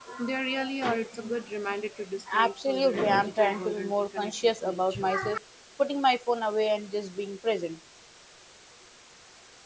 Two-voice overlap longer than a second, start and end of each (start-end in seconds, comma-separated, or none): 2.4-5.1